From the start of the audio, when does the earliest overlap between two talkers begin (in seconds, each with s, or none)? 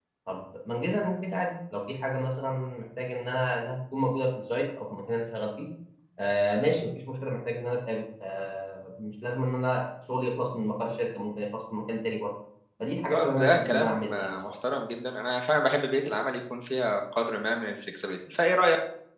13.1 s